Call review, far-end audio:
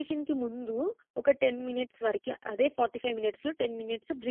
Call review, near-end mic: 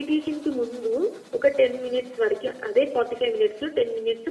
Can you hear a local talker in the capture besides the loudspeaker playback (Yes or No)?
No